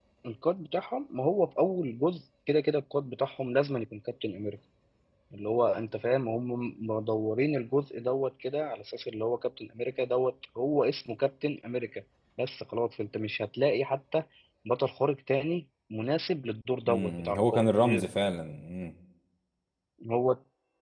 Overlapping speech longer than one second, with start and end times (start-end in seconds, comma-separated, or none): 16.9-18.1